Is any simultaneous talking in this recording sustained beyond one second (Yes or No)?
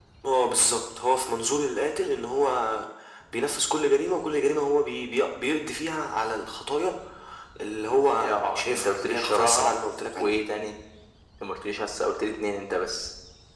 Yes